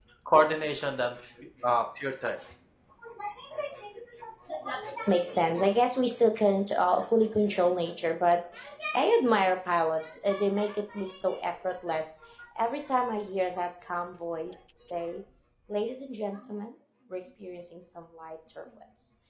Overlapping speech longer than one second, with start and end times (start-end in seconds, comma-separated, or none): none